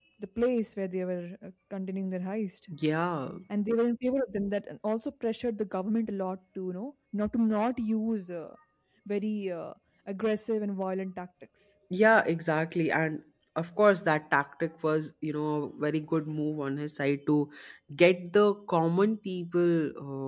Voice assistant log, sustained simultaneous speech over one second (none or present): none